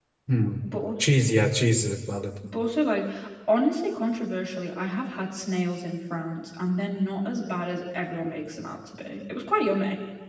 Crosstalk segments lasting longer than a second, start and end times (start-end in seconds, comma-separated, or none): none